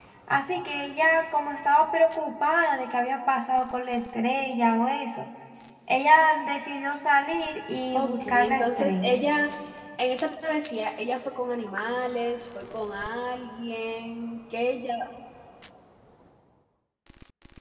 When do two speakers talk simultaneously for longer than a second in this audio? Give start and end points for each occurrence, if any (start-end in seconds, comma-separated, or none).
7.9-9.2